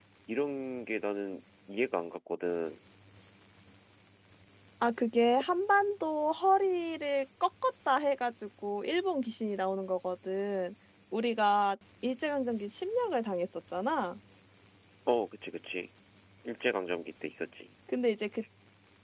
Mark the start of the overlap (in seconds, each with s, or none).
none